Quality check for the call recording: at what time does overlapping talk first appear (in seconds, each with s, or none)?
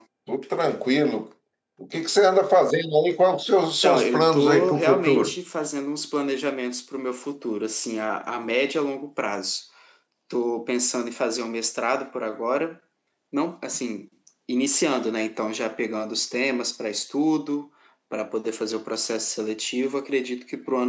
3.8 s